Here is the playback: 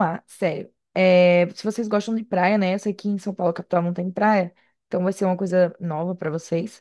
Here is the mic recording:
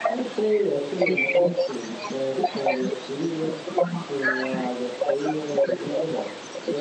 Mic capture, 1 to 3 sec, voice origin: both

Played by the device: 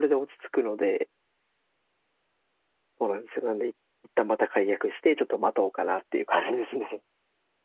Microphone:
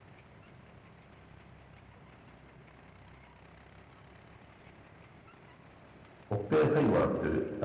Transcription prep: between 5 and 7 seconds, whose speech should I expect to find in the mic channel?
user only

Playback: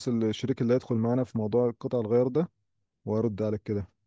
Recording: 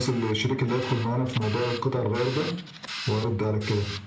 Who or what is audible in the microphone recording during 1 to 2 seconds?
echo only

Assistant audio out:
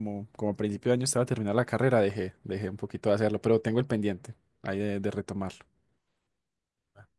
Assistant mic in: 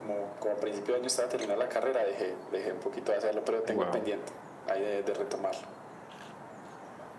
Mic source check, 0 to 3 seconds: echo only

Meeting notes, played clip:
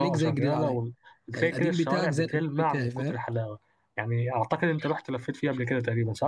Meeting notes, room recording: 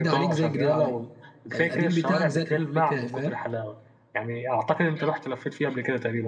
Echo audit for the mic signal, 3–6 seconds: echo only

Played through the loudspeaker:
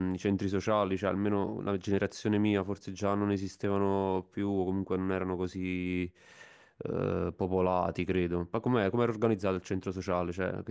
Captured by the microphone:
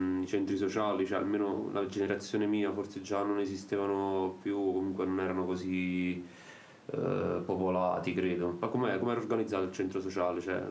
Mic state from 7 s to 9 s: echo only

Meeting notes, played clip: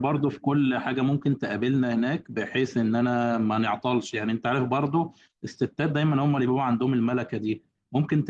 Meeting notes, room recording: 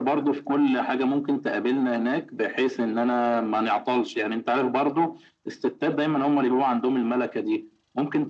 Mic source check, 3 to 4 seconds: echo only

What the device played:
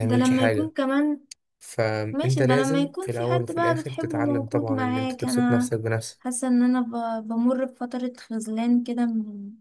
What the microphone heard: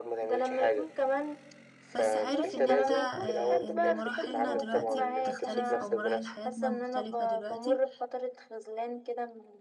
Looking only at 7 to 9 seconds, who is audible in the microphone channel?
both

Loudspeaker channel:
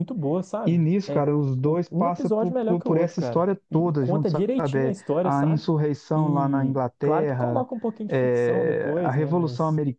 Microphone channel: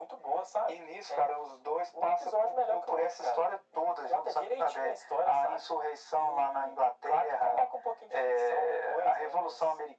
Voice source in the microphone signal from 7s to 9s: echo only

